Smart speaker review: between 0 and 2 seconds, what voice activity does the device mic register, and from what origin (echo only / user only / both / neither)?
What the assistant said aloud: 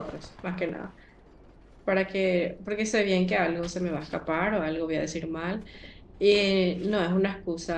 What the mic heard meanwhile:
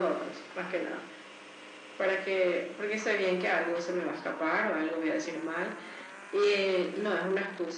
echo only